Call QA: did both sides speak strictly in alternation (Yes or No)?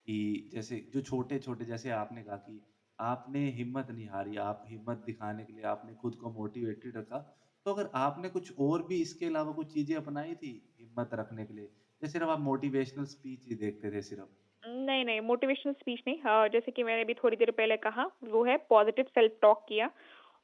Yes